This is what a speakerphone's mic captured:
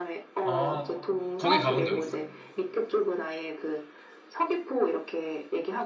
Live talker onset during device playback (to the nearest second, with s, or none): 0 s